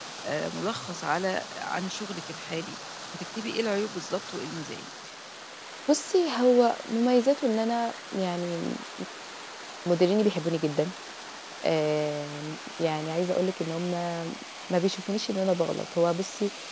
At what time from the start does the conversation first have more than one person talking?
none

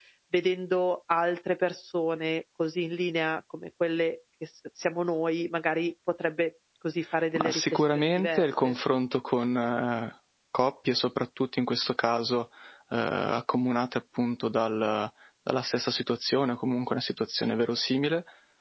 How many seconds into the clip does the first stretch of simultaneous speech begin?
7.4 s

